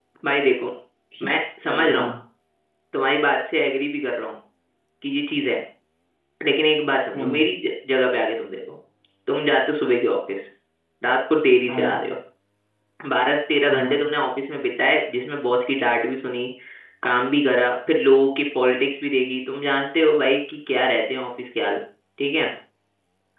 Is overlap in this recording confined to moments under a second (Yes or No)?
Yes